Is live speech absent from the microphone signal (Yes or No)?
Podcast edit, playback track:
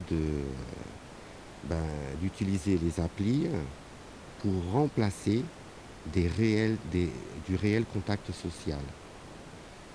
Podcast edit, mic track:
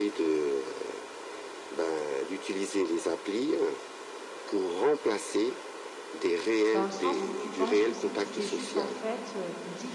No